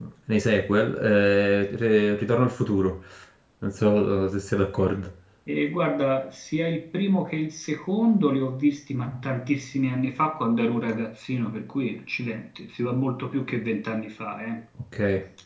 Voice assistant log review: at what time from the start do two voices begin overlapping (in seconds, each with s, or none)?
none